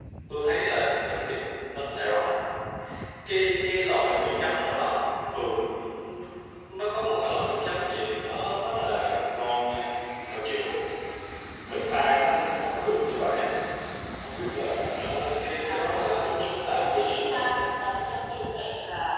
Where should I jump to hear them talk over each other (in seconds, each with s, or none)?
15.6 s